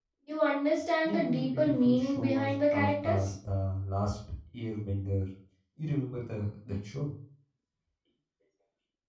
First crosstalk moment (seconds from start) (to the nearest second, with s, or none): 1 s